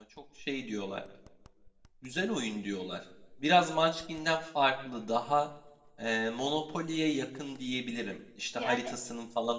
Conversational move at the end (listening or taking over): listening